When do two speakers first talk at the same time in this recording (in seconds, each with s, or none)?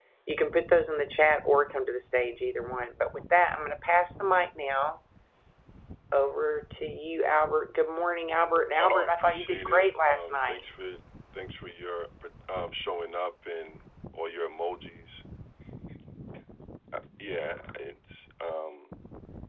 8.8 s